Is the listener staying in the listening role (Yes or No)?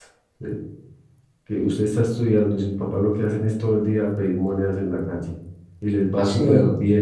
Yes